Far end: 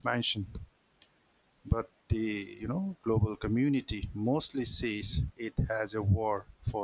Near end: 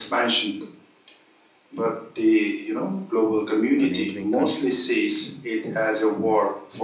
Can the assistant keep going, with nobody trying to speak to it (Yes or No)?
No